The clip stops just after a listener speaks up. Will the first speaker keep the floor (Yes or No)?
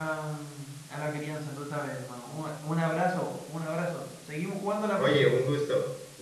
No